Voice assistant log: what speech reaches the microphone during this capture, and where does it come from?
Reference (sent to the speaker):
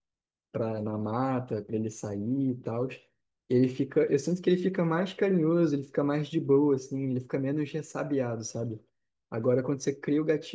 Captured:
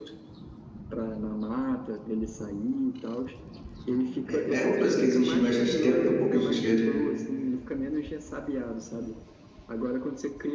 both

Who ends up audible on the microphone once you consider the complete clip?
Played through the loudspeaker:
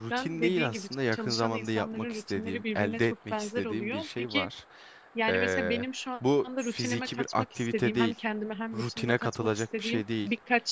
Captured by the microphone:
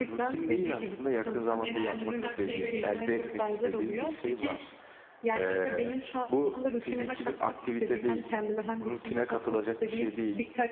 both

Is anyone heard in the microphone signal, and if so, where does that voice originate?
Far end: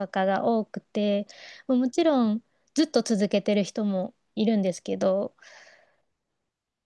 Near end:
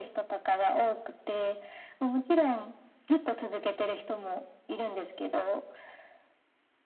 echo only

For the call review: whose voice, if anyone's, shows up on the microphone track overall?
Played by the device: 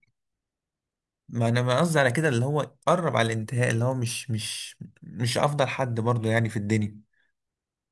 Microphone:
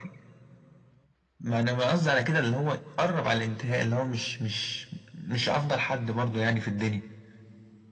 echo only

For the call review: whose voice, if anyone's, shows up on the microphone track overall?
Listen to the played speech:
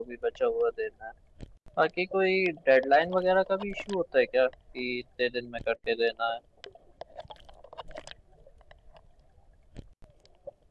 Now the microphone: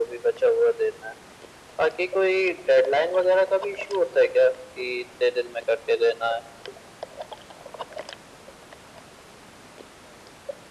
echo only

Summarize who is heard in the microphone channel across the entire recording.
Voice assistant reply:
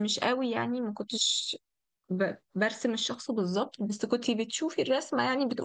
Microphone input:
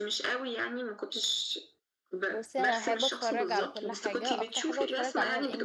both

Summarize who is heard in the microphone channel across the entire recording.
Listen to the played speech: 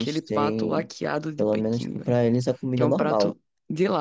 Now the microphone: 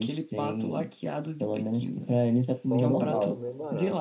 both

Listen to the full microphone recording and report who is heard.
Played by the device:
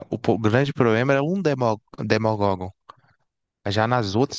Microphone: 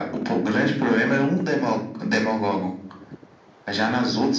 echo only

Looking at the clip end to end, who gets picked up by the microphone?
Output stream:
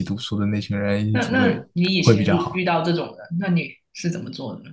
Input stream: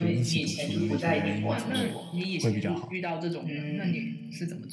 both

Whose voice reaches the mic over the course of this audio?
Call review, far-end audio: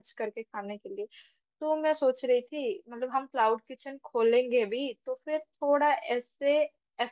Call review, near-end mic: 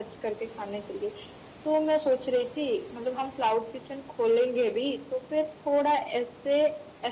echo only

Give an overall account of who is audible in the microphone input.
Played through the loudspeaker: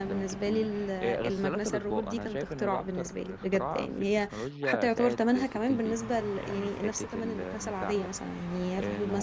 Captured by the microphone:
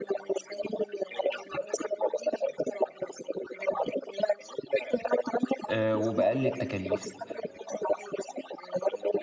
both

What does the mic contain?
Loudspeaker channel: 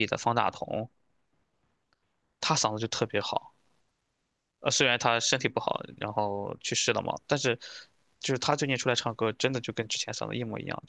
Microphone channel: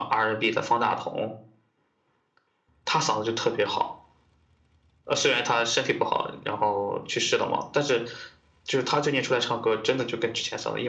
echo only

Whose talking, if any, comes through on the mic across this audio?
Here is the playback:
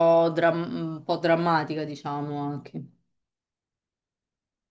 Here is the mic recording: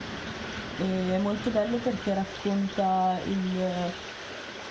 user only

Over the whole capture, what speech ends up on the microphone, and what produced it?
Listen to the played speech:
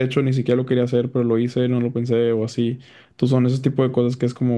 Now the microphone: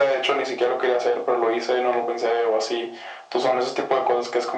echo only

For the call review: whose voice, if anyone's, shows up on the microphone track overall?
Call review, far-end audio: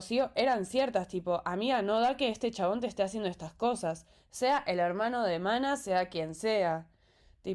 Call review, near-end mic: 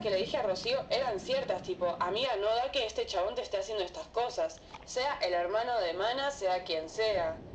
echo only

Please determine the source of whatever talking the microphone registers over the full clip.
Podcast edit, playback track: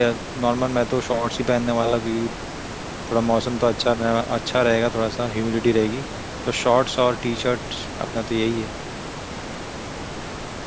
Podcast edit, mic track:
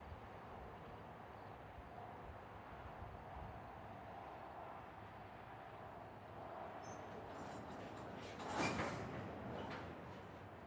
neither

